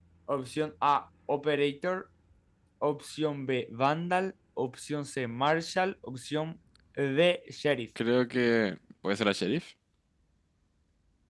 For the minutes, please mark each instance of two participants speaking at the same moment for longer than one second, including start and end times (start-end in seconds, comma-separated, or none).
none